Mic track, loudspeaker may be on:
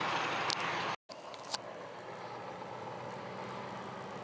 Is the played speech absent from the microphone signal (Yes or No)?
Yes